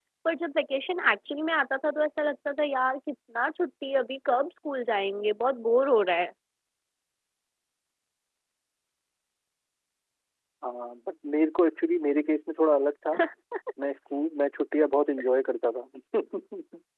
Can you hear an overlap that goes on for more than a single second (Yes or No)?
No